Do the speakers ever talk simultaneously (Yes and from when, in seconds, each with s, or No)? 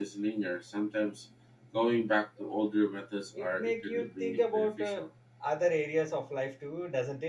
Yes, from 3.3 s